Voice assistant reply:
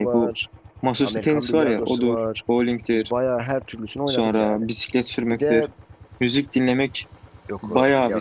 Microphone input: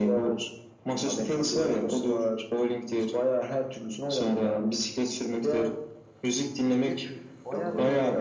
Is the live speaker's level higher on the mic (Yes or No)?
No